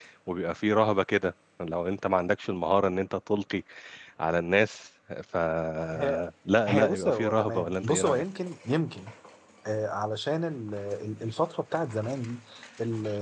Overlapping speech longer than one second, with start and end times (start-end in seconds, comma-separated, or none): 6.7-8.2